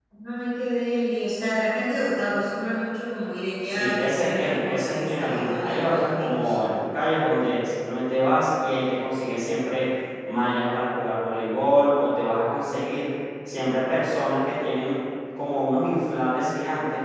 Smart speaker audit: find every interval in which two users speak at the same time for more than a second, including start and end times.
3.7-6.5

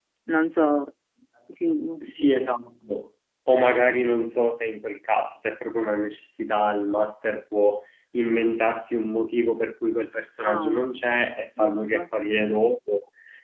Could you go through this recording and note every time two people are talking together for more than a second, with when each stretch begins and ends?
none

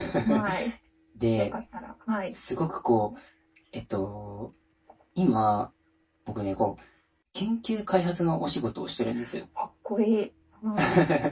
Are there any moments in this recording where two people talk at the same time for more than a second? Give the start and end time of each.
none

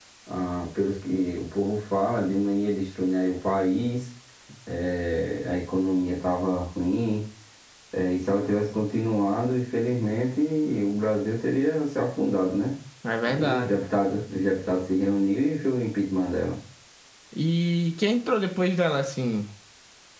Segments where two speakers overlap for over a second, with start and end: none

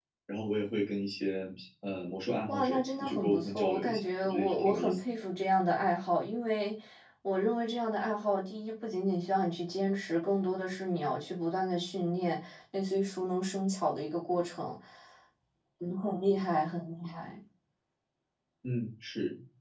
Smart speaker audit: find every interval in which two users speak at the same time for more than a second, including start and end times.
2.5-5.0

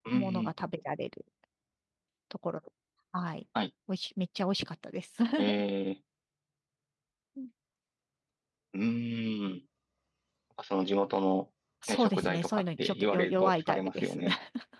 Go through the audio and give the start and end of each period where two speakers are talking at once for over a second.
11.9-14.2

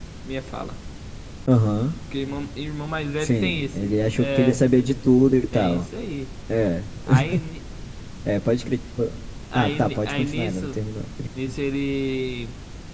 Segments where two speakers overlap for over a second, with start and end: 3.2-4.6, 9.5-10.8

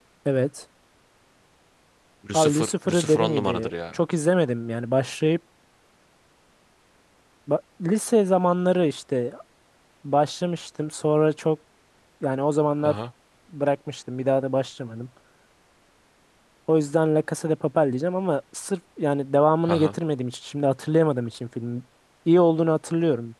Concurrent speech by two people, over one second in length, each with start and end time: 2.3-4.0

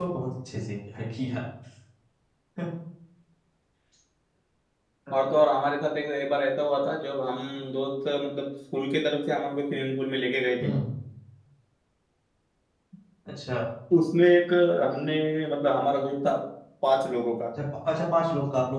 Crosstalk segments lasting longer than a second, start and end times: none

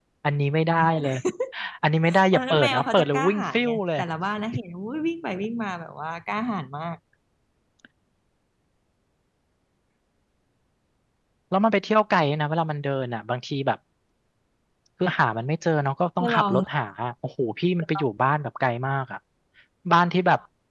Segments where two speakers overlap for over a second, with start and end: 2.3-4.0

